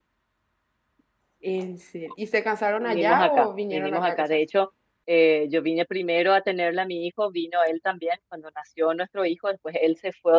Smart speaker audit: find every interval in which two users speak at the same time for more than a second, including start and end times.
2.8-4.2

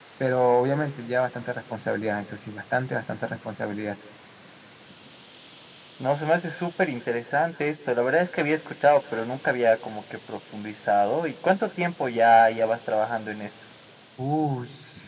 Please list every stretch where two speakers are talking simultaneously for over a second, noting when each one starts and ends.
none

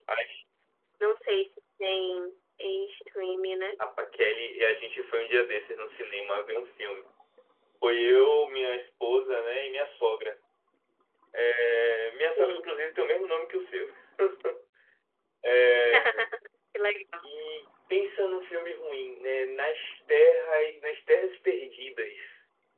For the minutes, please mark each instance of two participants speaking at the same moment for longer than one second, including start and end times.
none

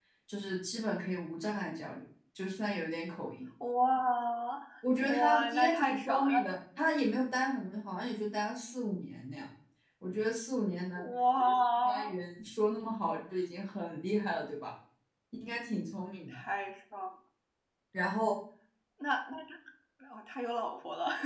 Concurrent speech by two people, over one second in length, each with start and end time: 5.0-6.5

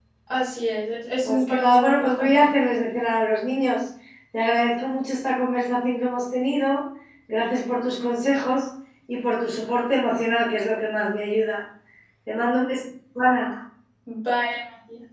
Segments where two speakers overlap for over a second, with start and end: 1.2-2.5

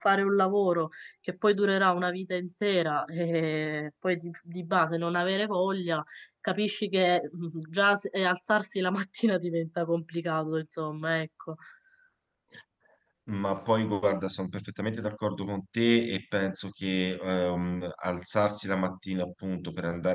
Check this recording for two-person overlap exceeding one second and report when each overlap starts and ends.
none

